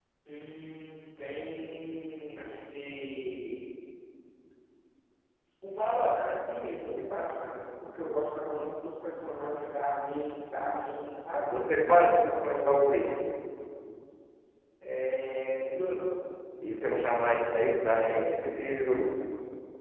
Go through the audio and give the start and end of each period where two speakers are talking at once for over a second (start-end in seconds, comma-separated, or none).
none